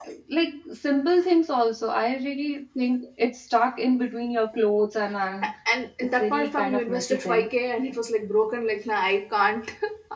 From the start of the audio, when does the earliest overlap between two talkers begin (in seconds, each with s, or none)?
6.1 s